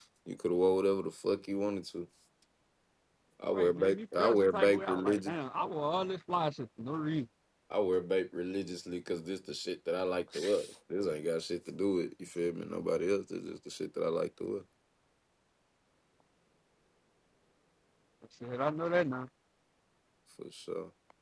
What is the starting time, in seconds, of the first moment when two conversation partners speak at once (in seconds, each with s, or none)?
3.5 s